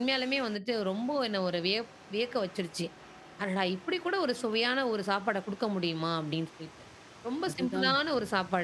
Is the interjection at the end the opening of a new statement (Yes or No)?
No